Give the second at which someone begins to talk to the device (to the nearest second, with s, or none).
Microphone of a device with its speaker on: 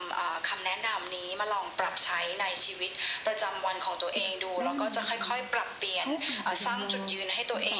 4 s